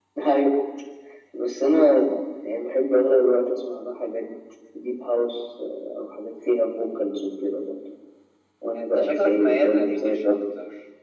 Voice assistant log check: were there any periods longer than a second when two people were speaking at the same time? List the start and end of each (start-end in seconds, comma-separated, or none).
8.8-10.3